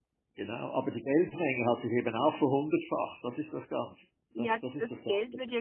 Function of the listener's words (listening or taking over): taking over